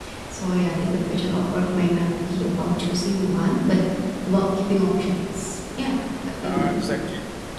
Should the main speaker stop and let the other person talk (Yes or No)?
Yes